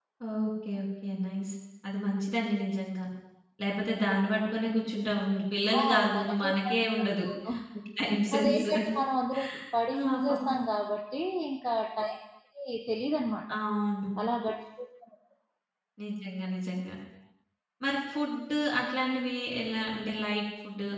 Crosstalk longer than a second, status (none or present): present